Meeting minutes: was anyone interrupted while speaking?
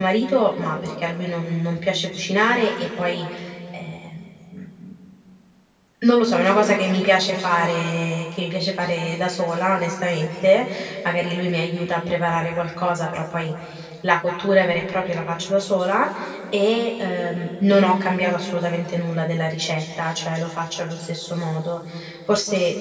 No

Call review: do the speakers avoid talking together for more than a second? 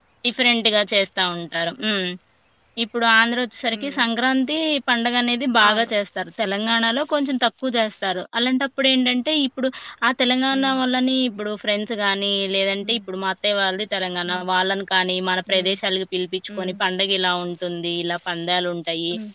Yes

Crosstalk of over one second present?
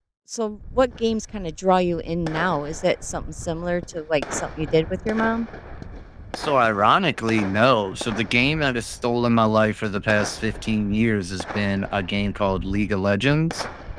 No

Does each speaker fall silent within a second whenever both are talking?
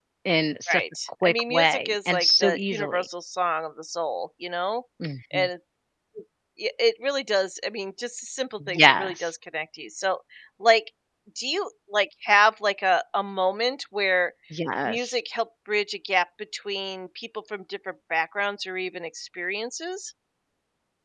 No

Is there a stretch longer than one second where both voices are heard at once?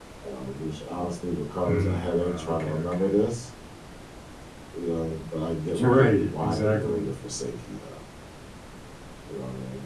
Yes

